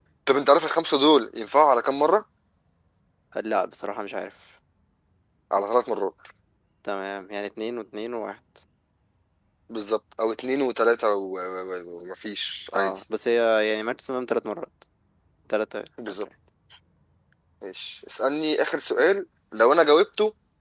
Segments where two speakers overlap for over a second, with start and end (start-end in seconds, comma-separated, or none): none